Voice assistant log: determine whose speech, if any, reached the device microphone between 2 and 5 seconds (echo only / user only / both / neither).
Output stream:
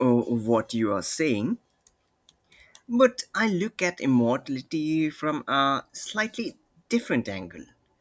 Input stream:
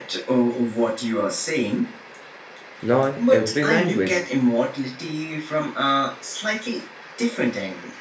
both